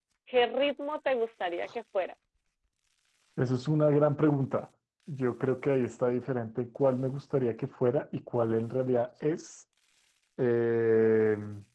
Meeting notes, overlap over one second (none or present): none